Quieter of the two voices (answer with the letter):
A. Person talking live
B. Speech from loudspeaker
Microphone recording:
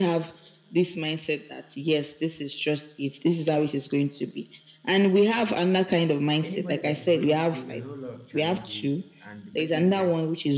A